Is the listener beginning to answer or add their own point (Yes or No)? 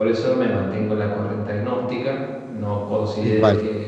No